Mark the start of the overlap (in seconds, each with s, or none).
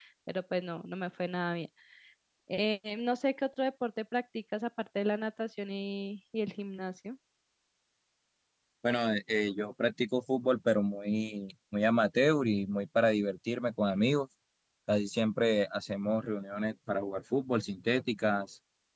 none